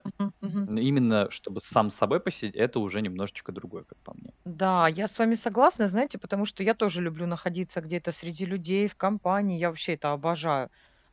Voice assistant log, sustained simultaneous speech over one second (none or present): none